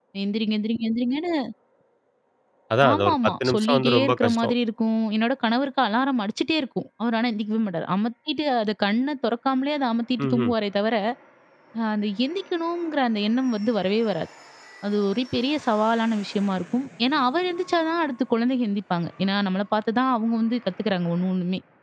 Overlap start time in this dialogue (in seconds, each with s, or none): 2.9 s